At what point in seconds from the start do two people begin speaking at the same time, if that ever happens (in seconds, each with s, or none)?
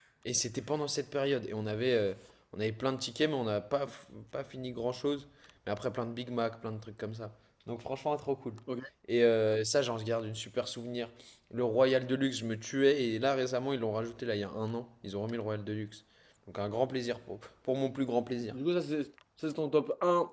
none